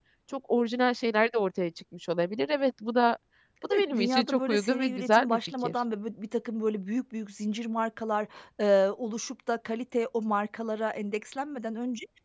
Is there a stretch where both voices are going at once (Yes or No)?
Yes